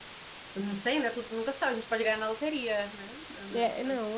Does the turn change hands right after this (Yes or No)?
Yes